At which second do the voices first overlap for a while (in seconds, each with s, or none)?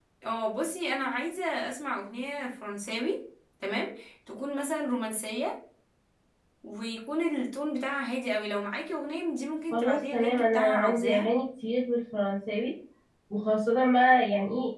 9.7 s